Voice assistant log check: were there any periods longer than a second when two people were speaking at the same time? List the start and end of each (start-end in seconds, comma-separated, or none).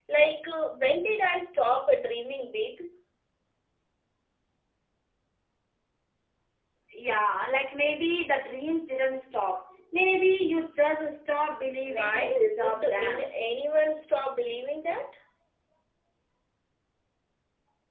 11.8-13.3